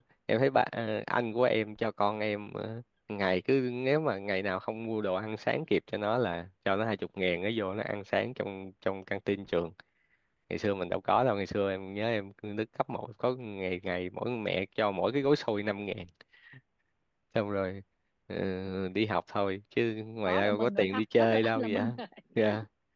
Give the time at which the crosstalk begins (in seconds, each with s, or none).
20.2 s